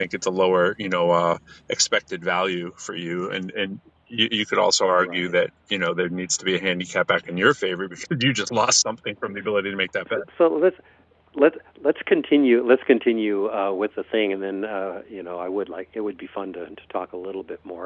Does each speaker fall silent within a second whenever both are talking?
Yes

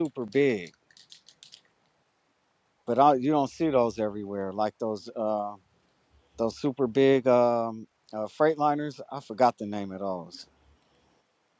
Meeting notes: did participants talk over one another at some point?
No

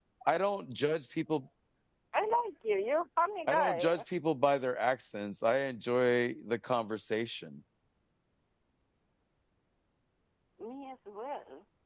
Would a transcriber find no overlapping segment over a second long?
Yes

